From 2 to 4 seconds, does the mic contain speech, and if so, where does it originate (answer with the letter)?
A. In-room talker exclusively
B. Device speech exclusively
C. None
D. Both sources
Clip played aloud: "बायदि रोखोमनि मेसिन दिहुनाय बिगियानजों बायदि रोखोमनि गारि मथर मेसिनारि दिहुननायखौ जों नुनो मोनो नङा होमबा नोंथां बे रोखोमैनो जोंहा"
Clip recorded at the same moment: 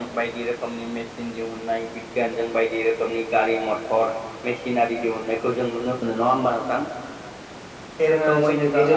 B